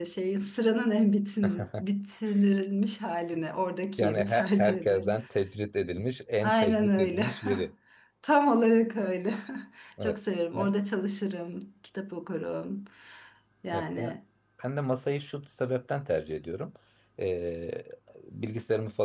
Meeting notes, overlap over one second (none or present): present